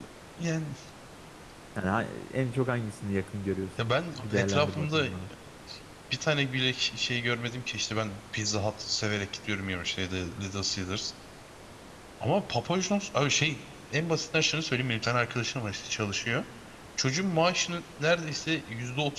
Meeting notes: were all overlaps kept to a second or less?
No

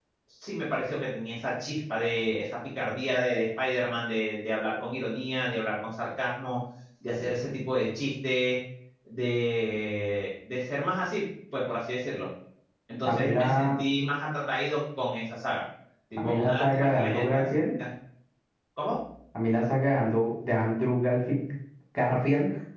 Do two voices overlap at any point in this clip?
Yes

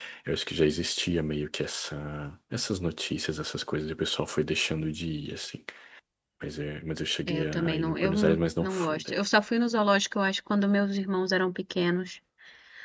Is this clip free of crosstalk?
No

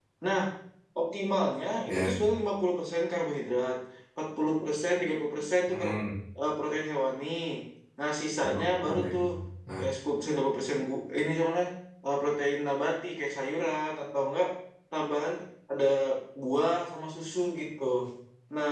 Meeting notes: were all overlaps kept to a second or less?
Yes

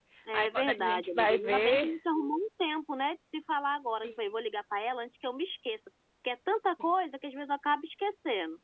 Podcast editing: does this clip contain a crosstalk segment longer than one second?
Yes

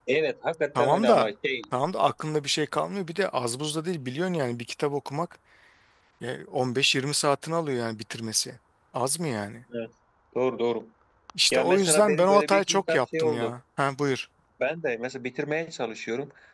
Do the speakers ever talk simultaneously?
Yes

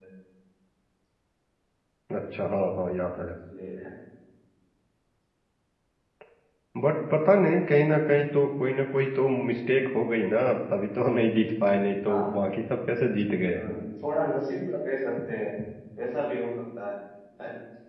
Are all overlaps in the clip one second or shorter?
Yes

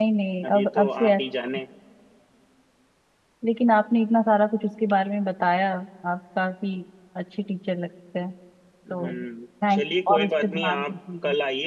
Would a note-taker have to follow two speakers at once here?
Yes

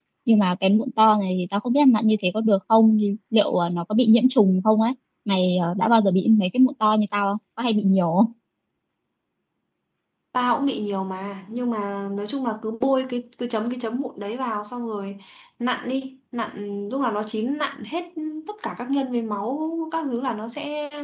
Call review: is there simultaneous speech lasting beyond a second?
No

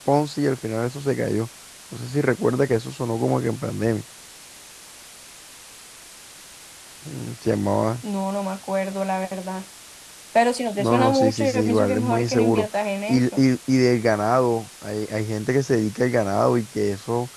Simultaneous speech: Yes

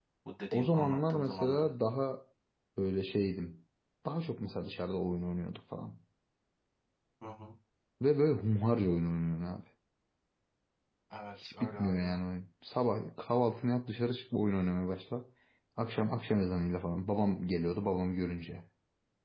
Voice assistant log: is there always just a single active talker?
No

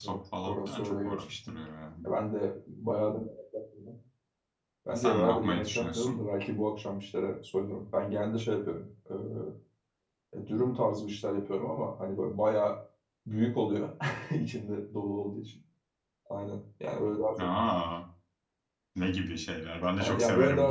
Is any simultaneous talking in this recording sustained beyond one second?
Yes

